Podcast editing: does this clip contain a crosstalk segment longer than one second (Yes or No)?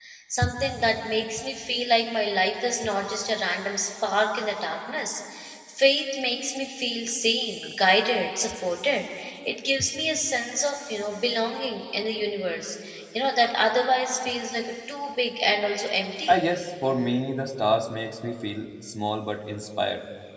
No